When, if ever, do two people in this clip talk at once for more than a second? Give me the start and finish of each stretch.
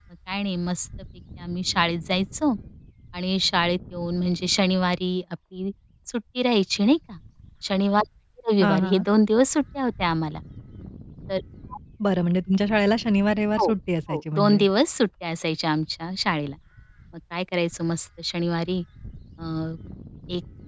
none

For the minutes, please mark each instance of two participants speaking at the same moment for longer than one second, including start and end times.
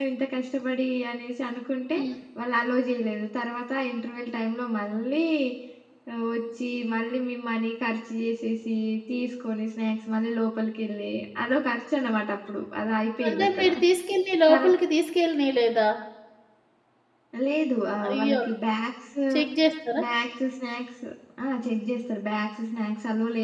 none

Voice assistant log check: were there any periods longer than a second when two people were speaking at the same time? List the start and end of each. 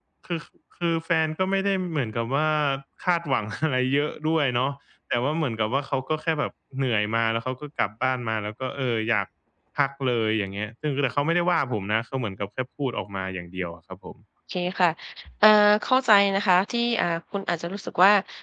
none

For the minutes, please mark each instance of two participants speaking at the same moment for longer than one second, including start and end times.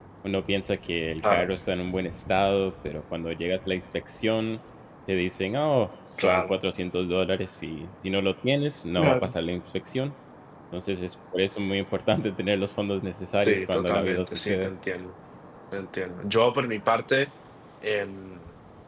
13.4-14.7

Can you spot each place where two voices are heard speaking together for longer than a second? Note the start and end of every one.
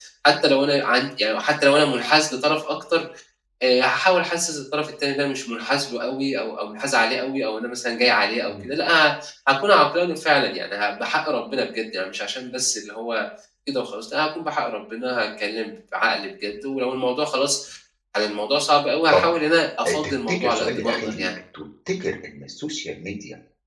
19.9-21.3

